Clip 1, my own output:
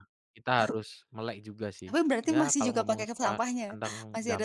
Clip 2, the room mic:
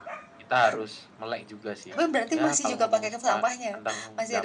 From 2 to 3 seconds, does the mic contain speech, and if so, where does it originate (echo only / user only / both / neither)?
echo only